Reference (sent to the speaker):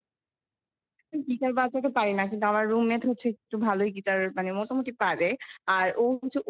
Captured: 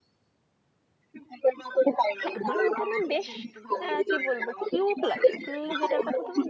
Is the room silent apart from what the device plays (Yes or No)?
No